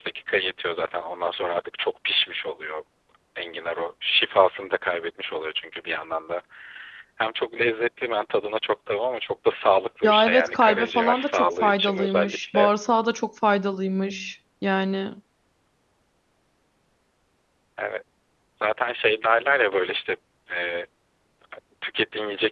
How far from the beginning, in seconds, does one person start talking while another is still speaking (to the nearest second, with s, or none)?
10 s